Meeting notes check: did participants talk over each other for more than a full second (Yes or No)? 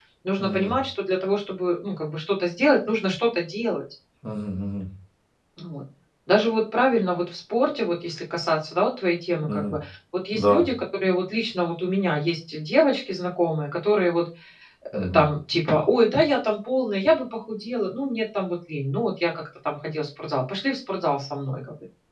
No